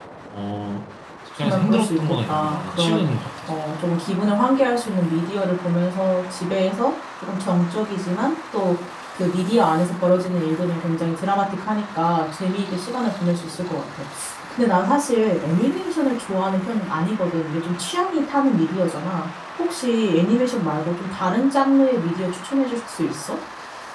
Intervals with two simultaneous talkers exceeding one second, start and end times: 1.4-3.0

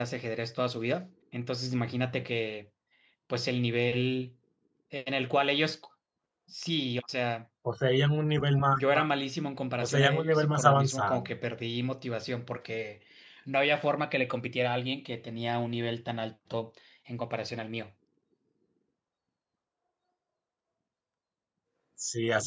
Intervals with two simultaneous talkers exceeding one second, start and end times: 9.8-11.3

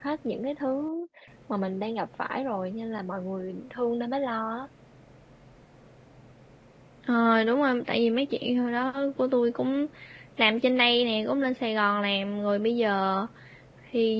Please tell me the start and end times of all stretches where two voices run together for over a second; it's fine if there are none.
none

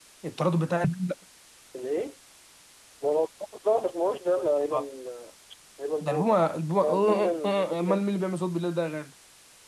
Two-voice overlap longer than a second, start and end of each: 6.8-8.0

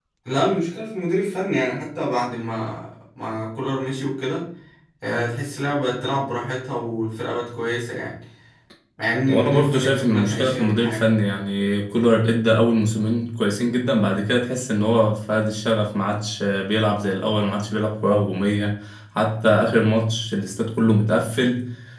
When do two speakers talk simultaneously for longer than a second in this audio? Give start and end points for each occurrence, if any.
9.3-11.0

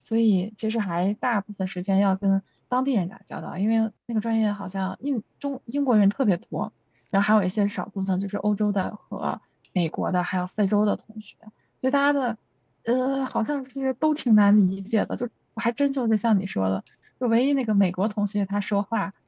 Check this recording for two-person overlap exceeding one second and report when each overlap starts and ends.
none

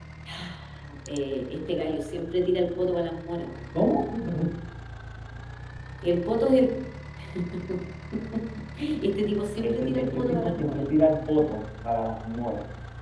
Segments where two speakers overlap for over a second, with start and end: 9.6-10.8

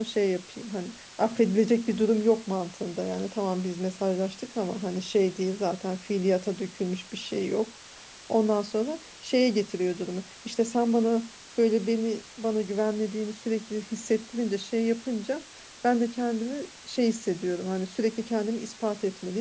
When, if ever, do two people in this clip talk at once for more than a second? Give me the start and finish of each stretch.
none

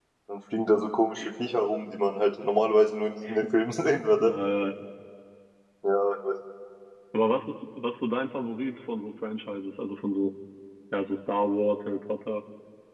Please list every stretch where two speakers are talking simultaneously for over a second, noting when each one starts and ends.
none

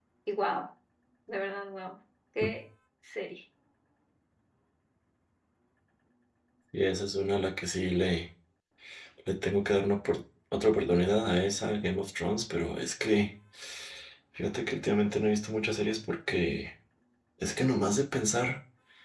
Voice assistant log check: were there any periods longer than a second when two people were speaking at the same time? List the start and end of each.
none

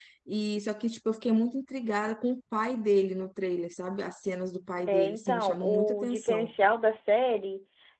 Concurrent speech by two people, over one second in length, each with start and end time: 4.9-6.5

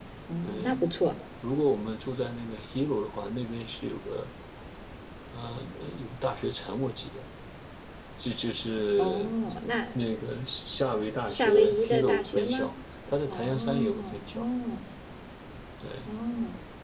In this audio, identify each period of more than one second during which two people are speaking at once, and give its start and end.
11.3-12.7, 13.3-14.5

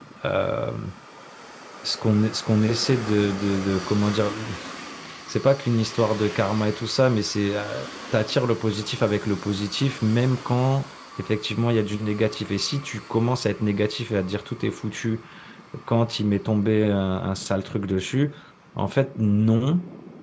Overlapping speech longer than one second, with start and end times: none

